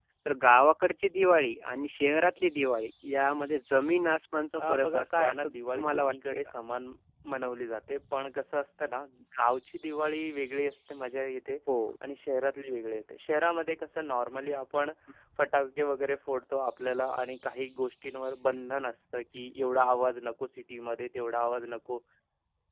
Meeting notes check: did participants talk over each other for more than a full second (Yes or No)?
Yes